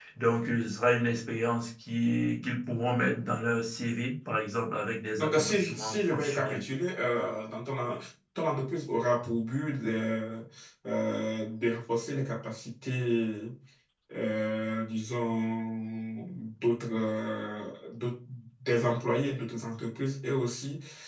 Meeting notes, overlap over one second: present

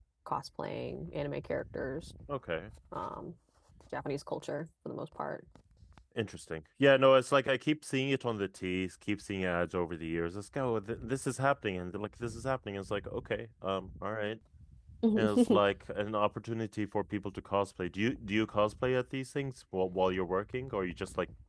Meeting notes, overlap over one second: none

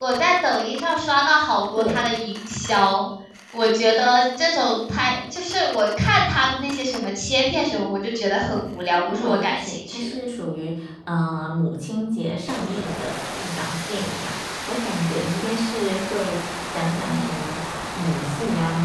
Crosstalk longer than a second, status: present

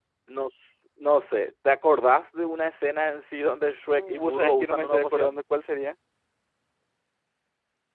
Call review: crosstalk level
present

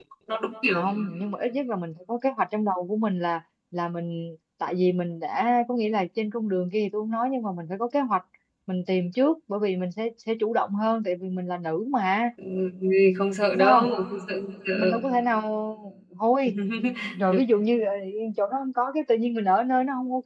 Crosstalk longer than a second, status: none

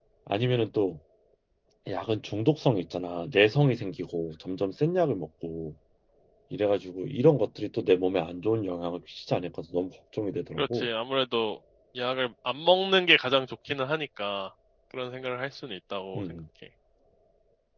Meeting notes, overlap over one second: none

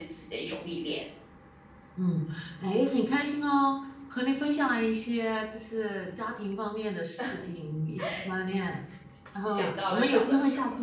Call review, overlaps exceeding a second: present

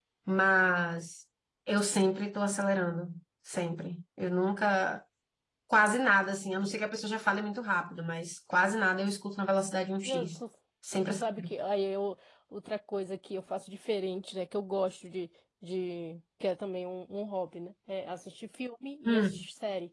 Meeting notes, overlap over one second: none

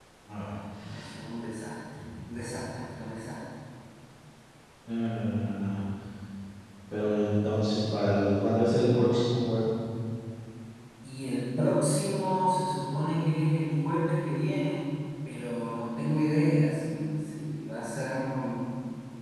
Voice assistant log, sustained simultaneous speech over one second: none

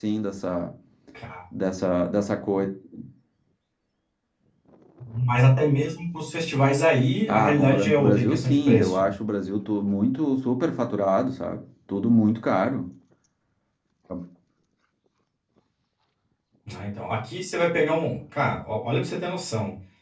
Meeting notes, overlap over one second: present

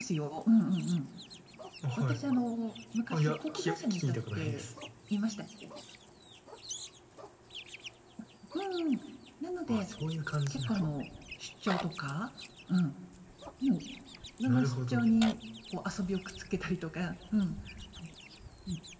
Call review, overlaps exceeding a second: present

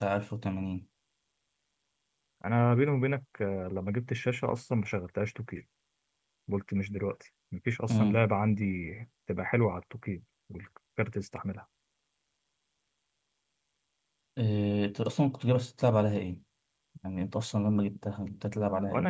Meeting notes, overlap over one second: none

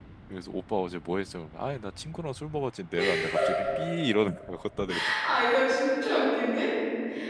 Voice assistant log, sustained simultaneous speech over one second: none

